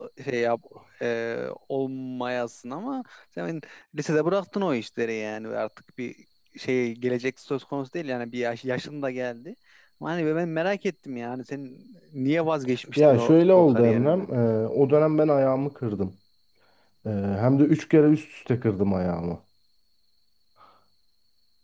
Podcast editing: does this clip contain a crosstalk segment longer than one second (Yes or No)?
Yes